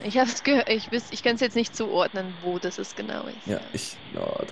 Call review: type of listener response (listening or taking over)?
taking over